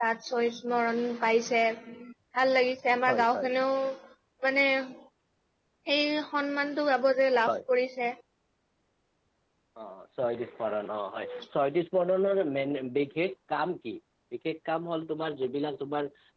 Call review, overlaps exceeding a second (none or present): none